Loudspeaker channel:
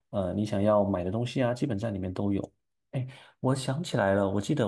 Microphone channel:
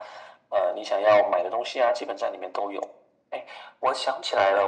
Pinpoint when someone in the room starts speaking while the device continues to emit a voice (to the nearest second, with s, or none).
none